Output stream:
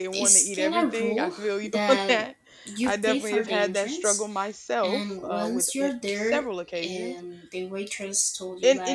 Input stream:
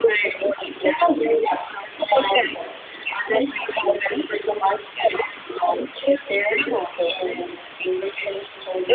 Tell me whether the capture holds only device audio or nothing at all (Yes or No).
Yes